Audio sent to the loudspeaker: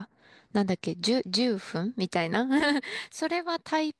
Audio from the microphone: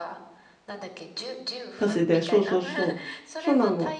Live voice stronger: Yes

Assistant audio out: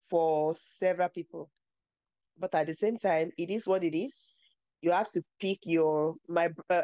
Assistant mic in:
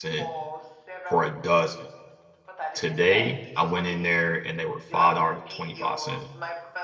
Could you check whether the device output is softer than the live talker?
Yes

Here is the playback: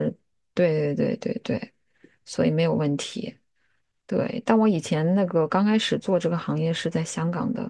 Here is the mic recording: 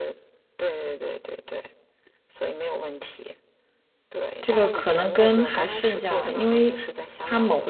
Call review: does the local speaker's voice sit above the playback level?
Yes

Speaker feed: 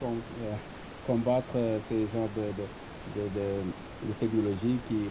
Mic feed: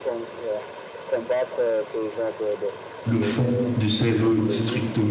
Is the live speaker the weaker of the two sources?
No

